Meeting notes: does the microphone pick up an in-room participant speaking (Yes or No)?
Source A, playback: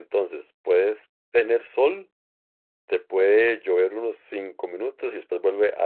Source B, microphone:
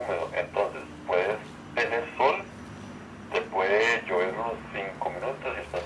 No